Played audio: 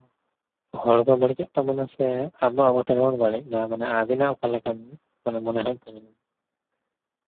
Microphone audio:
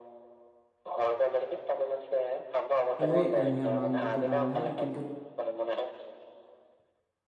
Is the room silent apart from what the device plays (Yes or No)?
No